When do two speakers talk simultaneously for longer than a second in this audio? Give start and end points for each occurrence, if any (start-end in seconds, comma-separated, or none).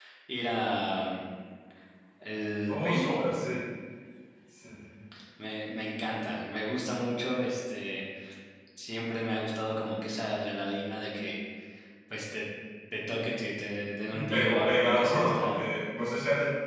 14.1-15.6